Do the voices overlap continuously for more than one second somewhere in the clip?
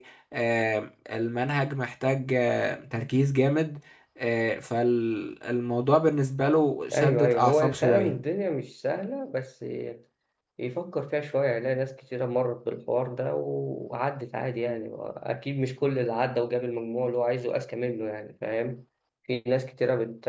Yes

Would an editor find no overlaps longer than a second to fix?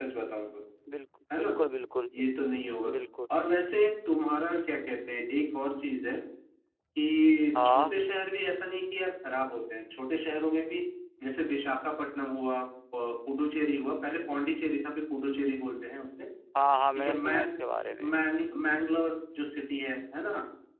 Yes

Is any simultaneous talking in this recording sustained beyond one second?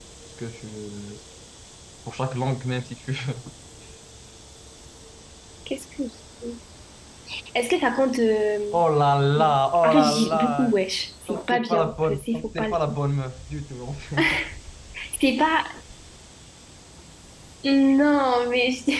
Yes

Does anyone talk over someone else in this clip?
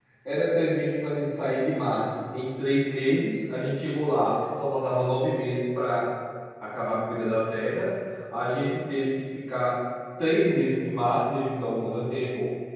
No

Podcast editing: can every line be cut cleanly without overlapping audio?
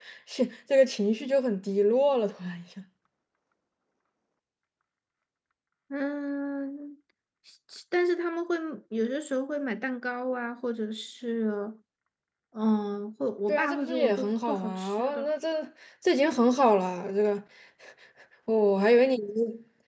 No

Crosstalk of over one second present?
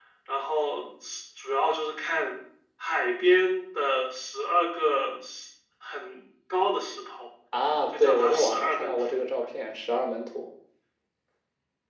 Yes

